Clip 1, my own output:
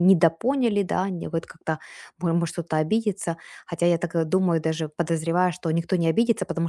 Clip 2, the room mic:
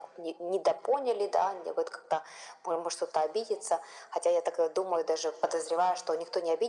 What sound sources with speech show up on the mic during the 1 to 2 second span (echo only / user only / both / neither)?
echo only